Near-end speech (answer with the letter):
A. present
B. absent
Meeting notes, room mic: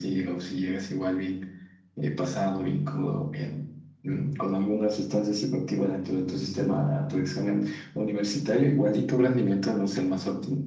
B